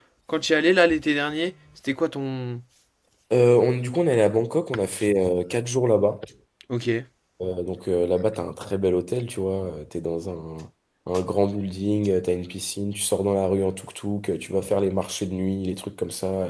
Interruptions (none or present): none